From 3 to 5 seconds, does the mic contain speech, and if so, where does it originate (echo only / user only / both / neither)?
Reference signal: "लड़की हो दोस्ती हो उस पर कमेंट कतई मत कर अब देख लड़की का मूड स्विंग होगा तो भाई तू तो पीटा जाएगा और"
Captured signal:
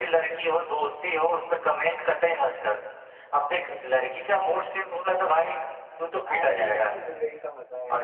echo only